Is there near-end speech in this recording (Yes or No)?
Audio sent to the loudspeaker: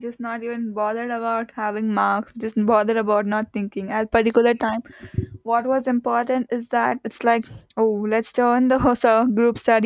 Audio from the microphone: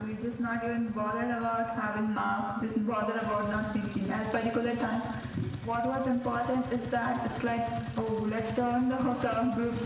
No